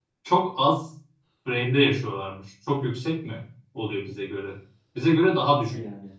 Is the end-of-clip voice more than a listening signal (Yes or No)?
No